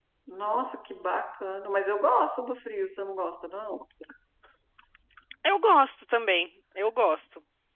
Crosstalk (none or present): none